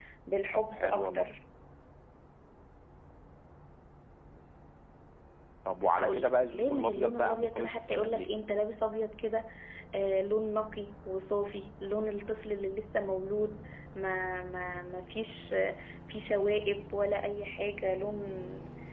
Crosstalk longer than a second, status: present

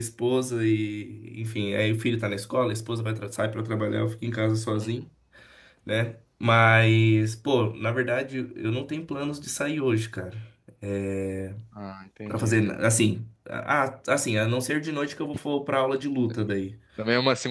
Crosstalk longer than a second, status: none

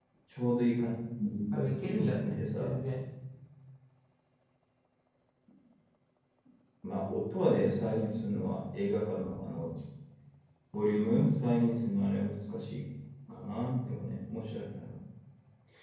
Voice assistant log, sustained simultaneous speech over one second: present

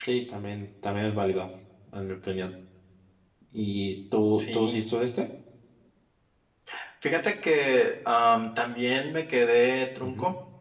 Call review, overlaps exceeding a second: none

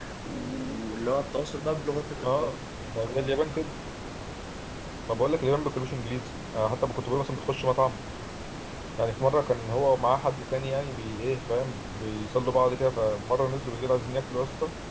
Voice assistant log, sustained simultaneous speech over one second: none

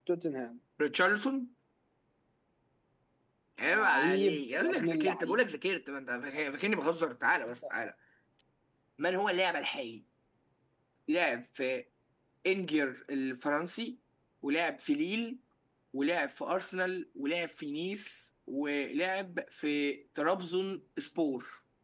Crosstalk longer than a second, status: present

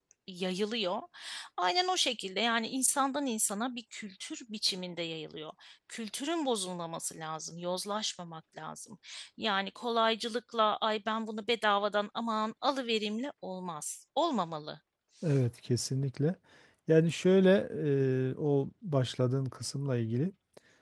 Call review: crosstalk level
none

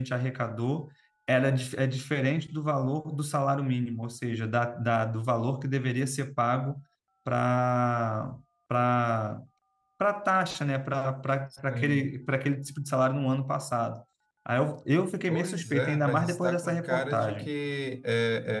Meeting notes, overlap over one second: present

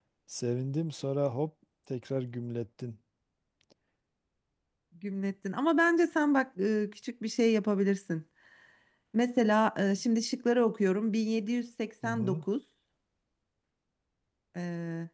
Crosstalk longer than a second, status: none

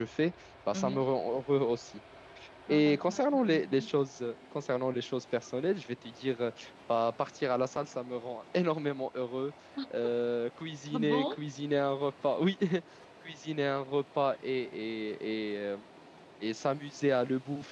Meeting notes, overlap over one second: present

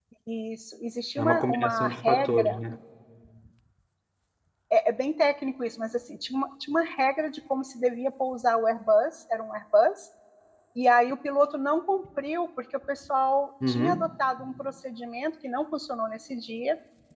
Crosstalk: present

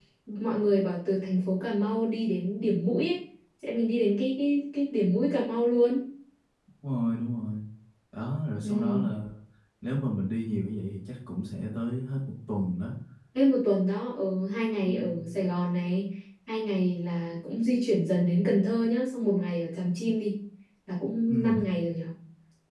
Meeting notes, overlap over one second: none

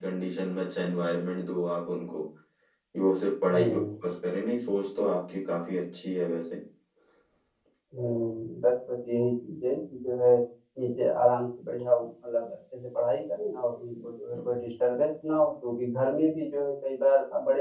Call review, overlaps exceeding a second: none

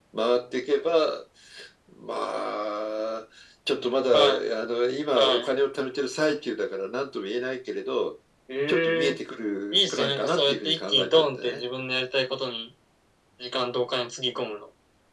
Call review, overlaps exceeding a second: present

